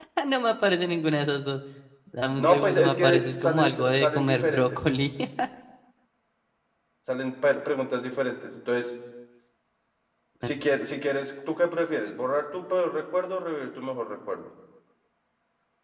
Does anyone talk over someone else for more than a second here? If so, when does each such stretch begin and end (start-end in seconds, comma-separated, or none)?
2.3-4.8